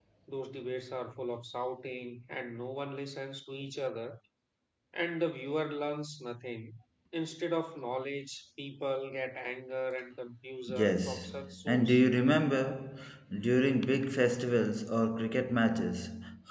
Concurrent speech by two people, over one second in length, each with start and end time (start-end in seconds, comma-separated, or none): 10.7-12.0